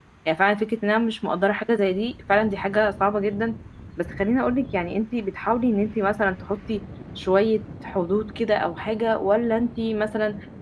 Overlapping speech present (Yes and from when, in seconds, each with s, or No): No